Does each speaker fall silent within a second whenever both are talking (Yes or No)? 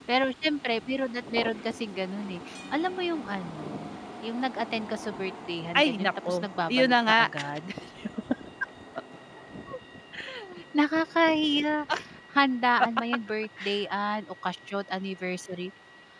No